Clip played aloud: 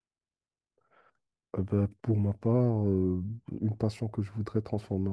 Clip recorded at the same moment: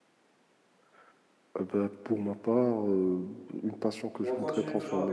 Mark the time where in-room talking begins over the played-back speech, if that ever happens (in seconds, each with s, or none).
4.2 s